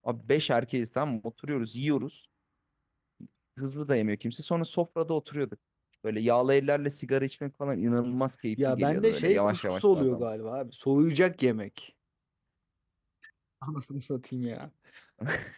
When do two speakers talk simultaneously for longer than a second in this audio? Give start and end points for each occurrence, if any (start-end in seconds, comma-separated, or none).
8.7-10.2